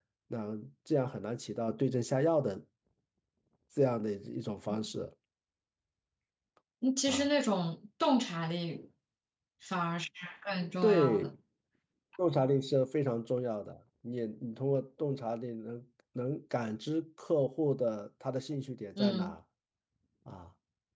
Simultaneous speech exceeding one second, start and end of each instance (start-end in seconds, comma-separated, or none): none